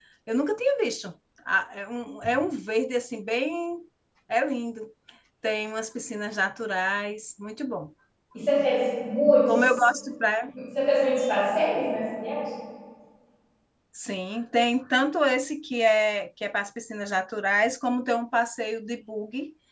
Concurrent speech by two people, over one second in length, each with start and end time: none

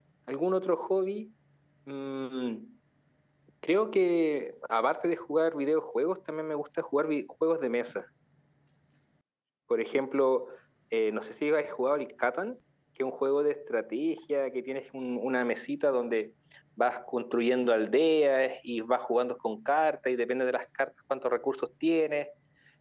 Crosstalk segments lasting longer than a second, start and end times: none

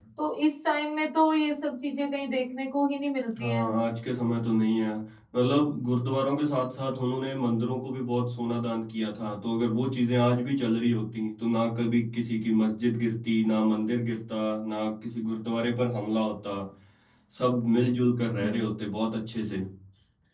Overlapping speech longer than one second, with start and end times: none

